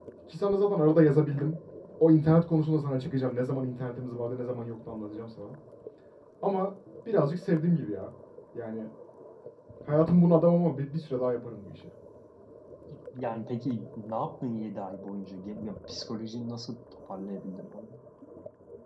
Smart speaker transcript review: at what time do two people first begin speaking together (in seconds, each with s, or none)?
none